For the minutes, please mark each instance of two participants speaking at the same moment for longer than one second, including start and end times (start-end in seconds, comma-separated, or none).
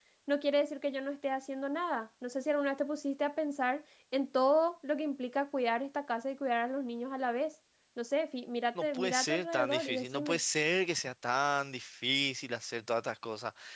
8.8-10.4